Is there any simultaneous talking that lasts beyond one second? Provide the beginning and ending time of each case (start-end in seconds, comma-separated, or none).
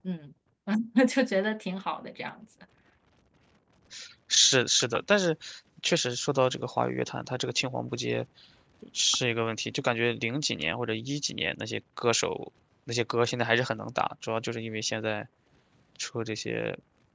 none